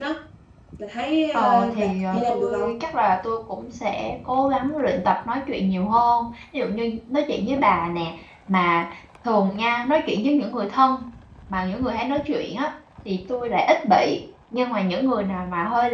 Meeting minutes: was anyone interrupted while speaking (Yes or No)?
Yes